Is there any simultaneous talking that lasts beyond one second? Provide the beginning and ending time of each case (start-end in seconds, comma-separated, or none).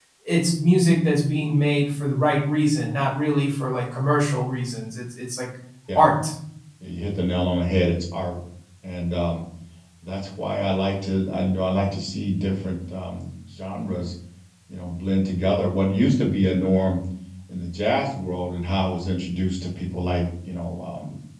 none